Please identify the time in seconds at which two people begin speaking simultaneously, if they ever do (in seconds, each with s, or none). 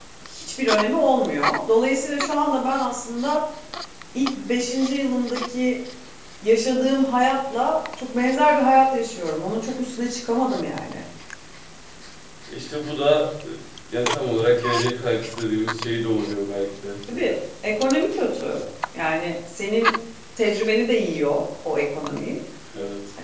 none